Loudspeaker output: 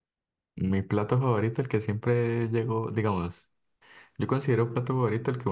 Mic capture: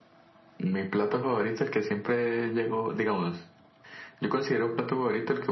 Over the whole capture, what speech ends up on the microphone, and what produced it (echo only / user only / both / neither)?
echo only